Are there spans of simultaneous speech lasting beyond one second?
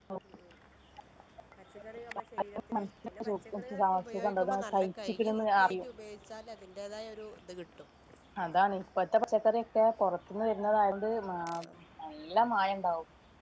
Yes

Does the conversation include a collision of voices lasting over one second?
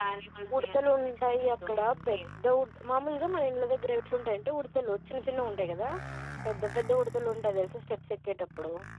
Yes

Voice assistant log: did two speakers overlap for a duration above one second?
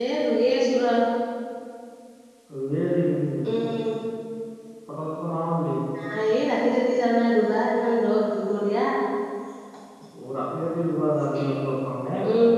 No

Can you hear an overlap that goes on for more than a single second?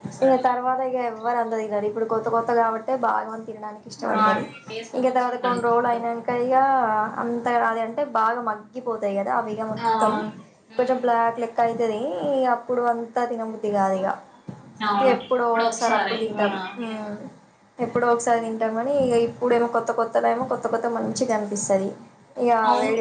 Yes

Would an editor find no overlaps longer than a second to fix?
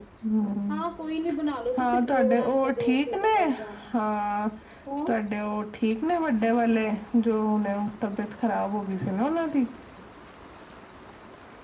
No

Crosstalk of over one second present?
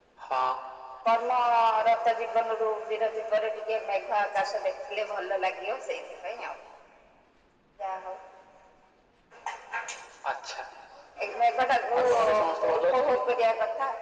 Yes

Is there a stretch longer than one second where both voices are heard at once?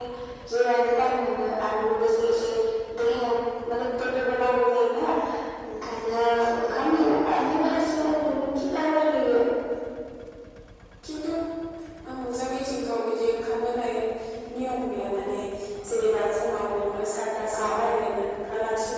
No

